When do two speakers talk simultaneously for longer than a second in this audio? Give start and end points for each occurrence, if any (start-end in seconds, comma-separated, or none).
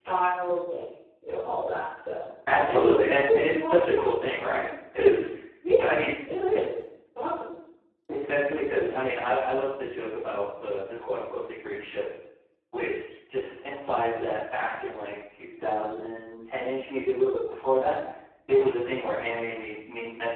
2.6-4.0